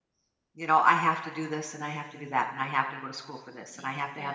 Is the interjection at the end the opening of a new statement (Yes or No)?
No